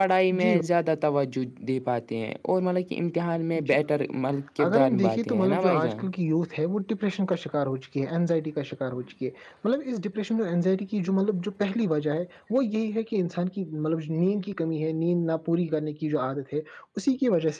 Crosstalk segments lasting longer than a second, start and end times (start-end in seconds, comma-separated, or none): 4.6-6.0